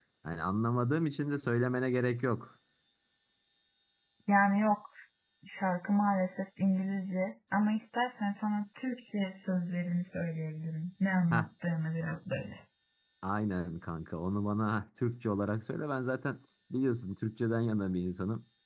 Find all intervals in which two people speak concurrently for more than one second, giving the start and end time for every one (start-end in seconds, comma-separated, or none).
none